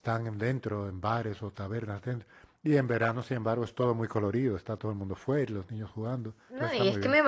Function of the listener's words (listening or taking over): taking over